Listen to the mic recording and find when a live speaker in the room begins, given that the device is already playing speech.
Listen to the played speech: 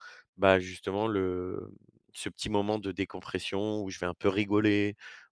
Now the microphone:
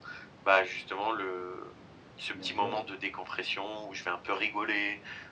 2.3 s

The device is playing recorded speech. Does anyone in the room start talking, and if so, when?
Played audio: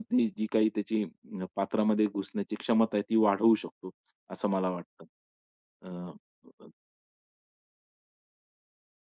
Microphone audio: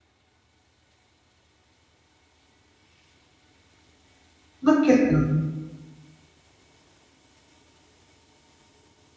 4.6 s

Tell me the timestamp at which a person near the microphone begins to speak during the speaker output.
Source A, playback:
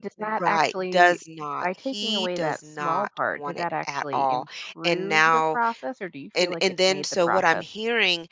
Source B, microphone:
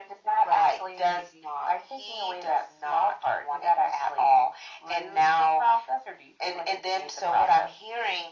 none

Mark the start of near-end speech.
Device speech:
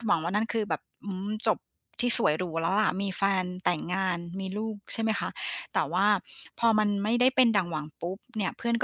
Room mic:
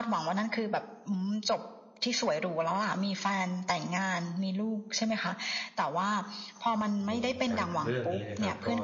7.0 s

